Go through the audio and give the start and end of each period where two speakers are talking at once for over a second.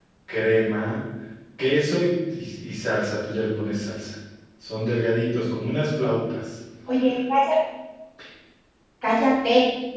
none

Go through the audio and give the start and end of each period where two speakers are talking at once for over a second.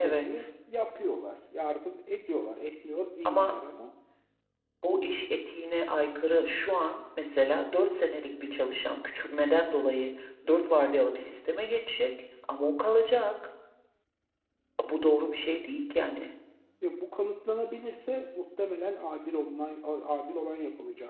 none

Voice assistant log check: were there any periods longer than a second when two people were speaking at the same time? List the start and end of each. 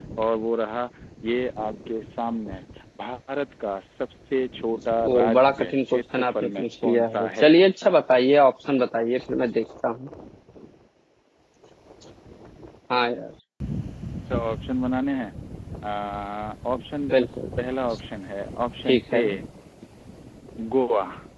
5.0-7.5

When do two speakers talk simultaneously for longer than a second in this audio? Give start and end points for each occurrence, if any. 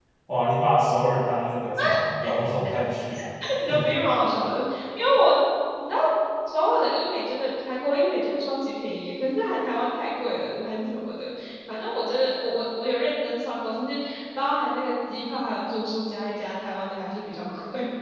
none

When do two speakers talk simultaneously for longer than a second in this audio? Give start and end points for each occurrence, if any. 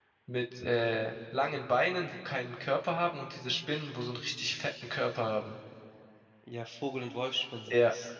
none

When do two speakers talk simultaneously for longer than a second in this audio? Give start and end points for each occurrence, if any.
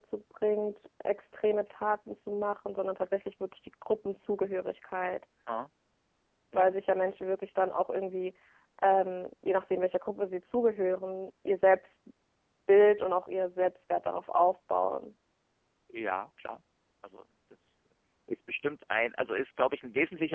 none

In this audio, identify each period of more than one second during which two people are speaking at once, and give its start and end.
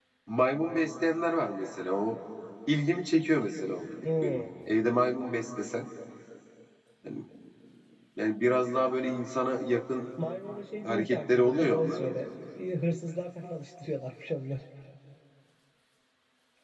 10.8-12.1

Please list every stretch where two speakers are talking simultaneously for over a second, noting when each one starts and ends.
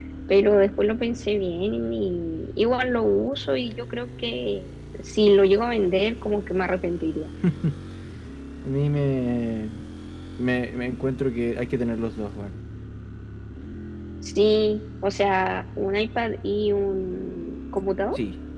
none

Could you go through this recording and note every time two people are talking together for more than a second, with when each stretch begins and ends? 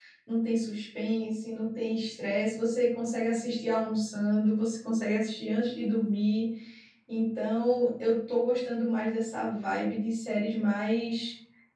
none

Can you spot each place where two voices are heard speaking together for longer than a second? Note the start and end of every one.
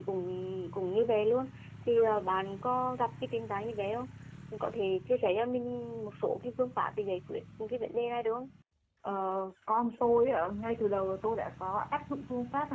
none

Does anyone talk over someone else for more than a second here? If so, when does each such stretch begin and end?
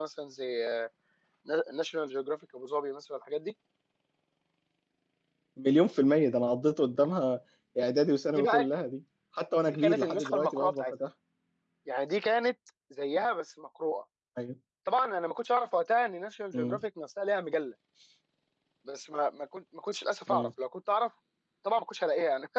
9.7-10.9

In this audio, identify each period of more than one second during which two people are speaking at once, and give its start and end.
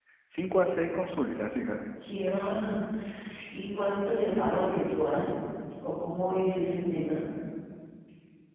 none

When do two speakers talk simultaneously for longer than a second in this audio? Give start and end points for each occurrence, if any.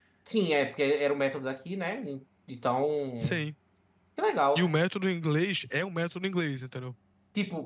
none

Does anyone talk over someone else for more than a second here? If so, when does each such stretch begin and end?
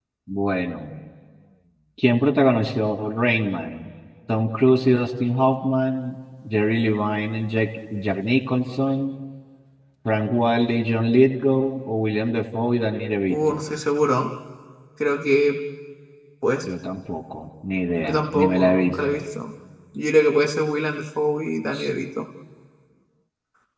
18.0-19.2

